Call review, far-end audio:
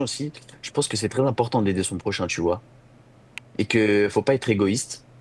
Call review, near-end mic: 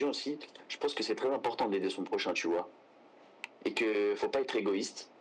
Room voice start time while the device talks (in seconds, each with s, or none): none